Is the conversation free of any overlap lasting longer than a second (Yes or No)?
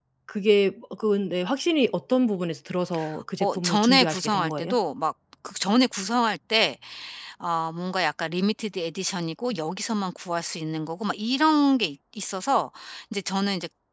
No